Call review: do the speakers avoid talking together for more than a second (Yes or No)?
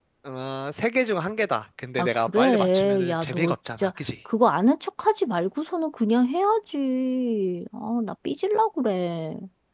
No